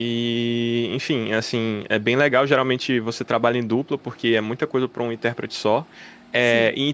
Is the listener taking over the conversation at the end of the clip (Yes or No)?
No